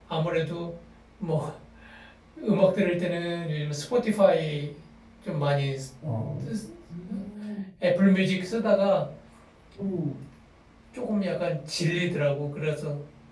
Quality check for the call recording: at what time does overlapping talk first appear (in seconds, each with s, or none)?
none